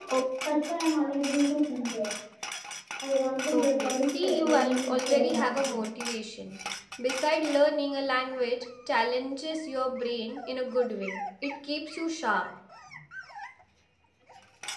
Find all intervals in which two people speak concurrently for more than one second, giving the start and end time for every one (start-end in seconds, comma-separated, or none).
3.5-5.8